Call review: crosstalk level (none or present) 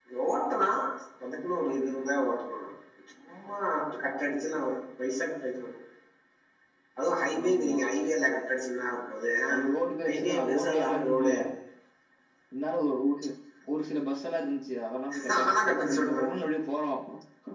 present